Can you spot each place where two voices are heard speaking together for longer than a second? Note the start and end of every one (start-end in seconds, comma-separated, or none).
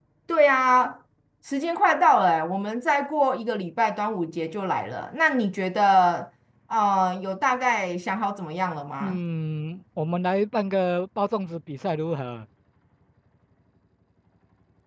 none